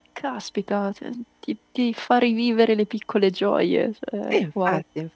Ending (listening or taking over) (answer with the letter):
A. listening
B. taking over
B